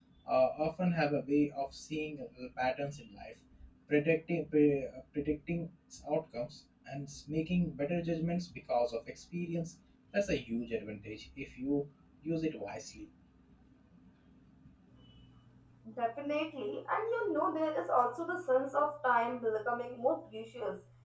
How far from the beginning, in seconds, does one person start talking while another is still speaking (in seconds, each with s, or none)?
none